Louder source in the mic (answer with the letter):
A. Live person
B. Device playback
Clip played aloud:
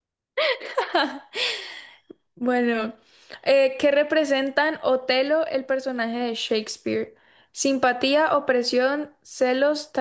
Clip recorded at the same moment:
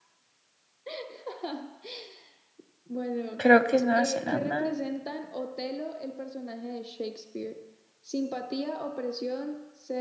A